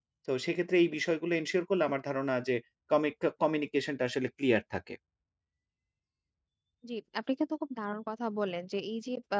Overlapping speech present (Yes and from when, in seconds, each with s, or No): No